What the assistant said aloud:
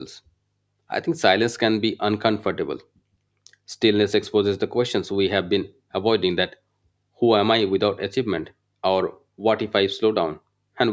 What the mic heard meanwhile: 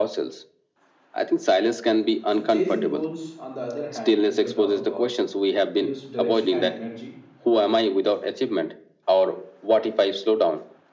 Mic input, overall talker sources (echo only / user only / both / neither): both